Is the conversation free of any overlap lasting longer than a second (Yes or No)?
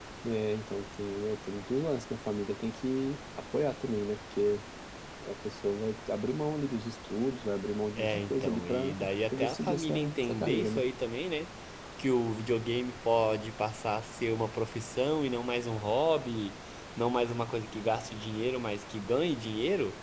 No